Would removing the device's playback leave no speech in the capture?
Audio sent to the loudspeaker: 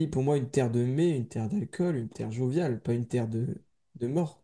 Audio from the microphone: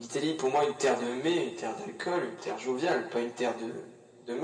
Yes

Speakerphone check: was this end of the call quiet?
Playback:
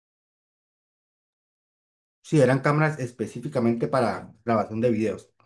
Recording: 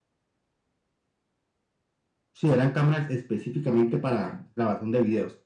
Yes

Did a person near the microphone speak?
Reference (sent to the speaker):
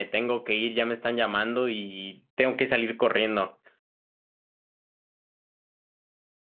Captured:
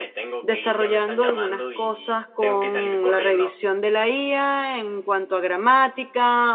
Yes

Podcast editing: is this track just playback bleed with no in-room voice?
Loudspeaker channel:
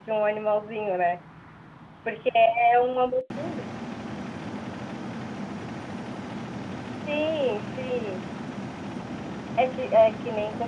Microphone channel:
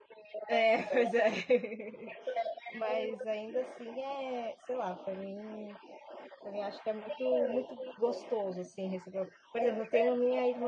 No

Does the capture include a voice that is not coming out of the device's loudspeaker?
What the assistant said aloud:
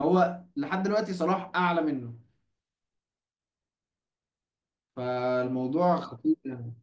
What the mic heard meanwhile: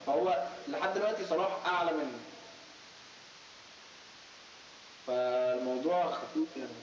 No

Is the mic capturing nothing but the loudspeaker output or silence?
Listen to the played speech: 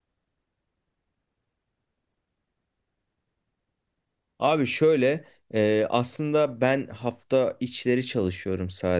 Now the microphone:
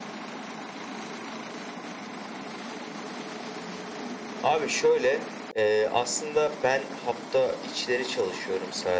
Yes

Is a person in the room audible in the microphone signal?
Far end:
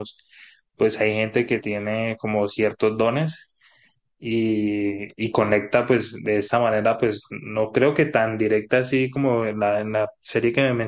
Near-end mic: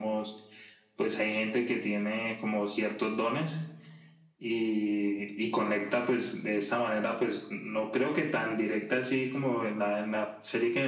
No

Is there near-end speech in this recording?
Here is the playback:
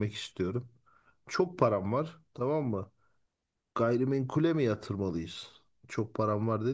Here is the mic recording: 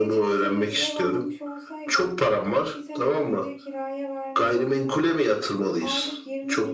Yes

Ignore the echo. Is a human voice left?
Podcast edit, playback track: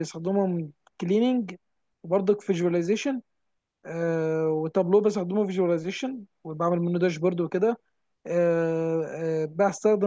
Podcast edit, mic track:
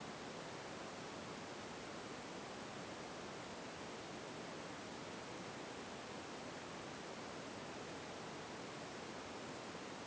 No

